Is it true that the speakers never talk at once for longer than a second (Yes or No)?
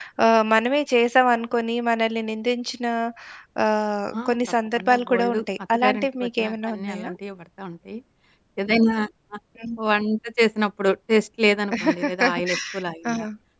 No